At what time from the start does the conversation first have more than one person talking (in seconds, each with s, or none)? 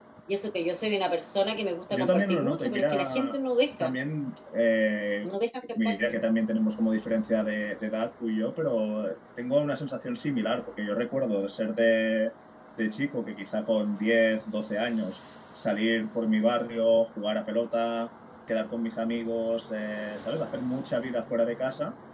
1.9 s